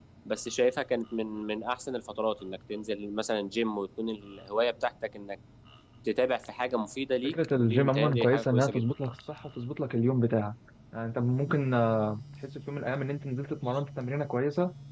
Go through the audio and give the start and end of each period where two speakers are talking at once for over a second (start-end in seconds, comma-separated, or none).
7.2-8.8